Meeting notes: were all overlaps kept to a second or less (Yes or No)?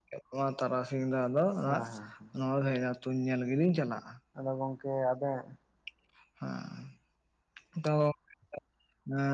Yes